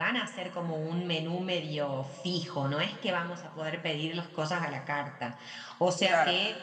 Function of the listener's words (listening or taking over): listening